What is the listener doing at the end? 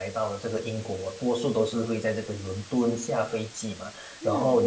listening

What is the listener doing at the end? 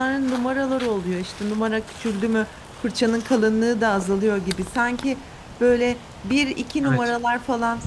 listening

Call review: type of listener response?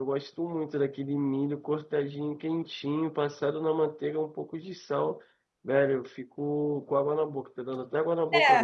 taking over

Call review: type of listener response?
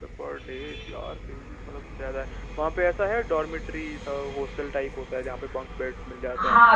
taking over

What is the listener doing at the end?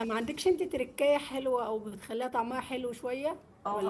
taking over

